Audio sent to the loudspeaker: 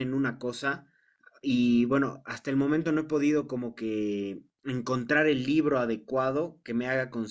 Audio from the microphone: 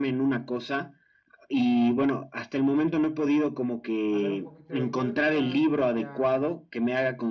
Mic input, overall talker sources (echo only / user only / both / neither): both